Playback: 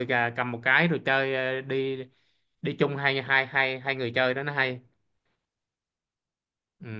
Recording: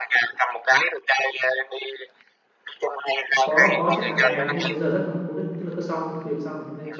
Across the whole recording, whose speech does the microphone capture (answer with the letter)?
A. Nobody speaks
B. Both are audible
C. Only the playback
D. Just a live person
B